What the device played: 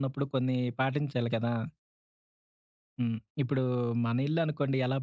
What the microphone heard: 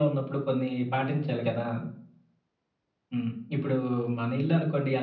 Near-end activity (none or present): none